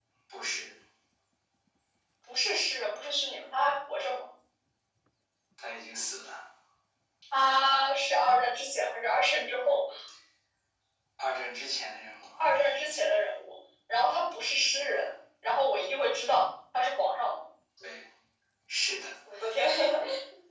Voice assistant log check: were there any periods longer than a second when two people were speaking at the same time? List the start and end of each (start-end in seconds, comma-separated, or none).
none